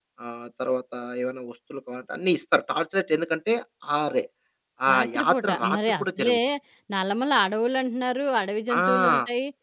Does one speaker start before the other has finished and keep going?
Yes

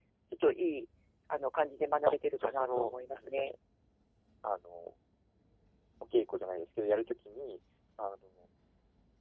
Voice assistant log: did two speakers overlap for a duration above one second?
Yes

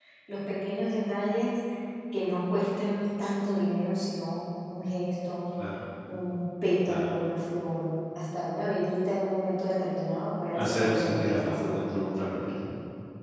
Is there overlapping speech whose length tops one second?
Yes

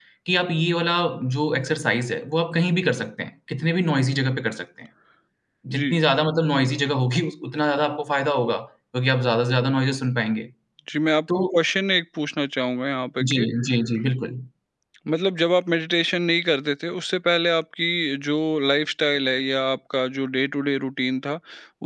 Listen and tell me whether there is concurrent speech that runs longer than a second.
No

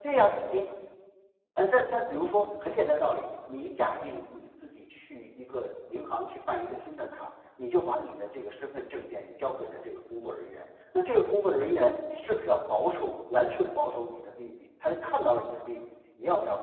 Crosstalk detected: No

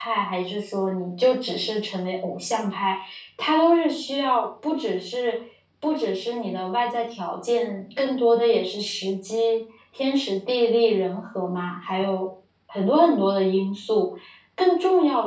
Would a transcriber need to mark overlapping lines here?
No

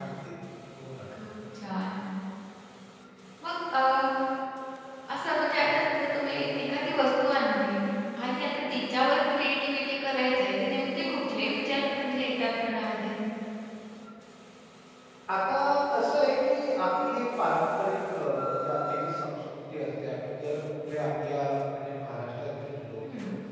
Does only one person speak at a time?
Yes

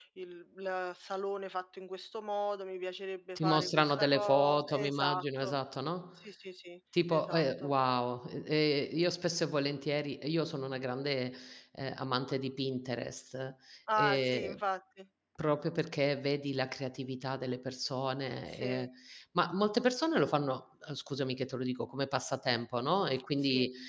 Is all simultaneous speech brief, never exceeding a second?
No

